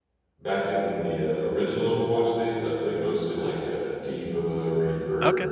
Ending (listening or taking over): listening